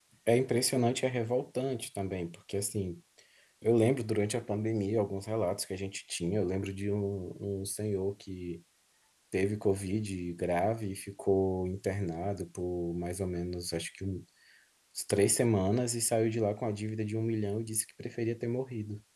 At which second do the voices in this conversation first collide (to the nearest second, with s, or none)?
none